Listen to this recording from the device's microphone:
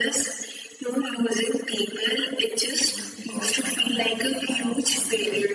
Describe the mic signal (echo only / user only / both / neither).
both